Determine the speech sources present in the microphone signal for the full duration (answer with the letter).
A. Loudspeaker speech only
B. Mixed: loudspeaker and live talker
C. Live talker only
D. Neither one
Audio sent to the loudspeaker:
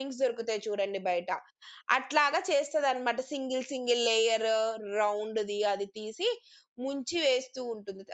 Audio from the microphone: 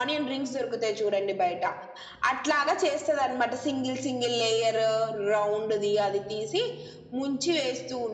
A